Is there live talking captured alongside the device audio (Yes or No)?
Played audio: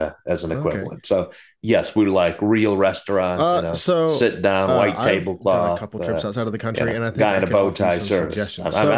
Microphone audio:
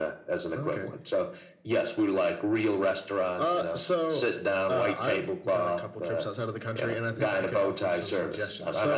No